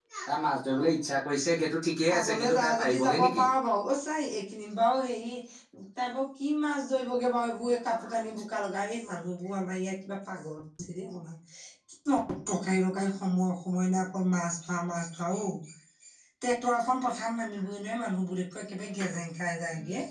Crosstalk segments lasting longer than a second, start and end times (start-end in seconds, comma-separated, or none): 2.1-3.4